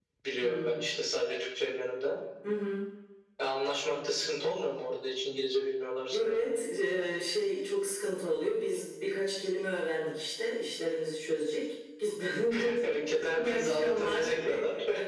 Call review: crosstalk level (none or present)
present